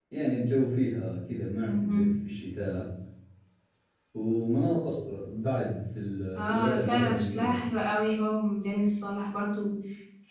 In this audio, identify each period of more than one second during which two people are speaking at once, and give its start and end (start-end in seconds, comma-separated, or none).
6.3-7.6